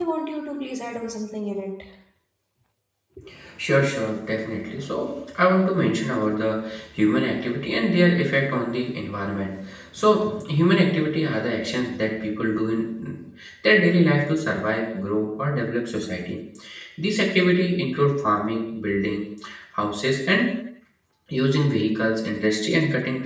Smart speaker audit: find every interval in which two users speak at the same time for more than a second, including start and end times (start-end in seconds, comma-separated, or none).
none